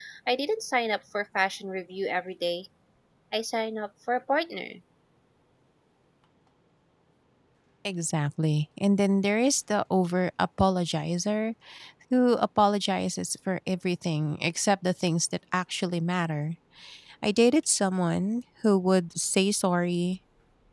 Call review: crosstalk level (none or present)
none